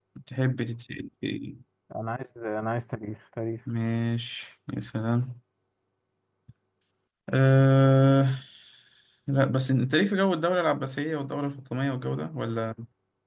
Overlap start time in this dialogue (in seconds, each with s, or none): none